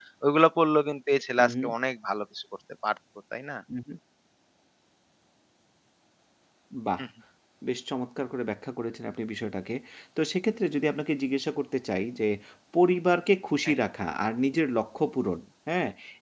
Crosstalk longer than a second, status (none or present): none